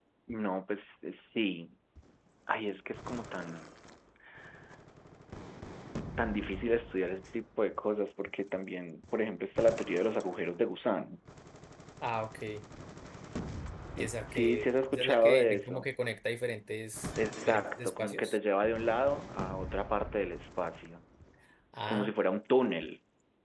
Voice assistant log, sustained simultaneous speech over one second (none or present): present